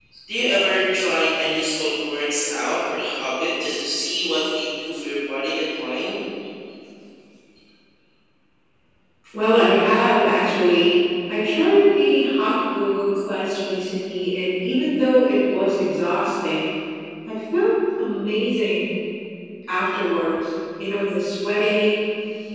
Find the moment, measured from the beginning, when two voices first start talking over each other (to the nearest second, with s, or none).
none